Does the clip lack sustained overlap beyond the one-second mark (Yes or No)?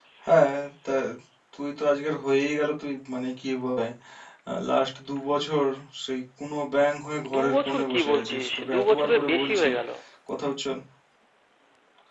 No